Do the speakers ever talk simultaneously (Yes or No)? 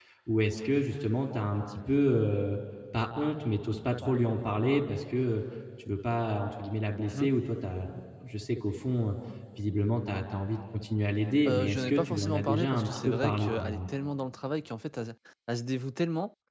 Yes